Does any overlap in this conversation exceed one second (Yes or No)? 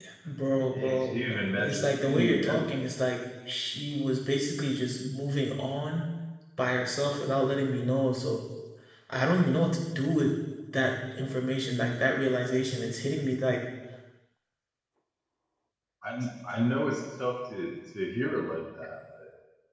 Yes